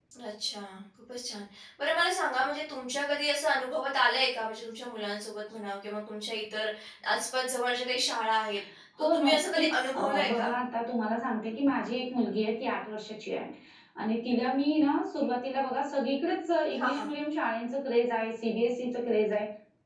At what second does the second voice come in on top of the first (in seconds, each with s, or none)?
9.1 s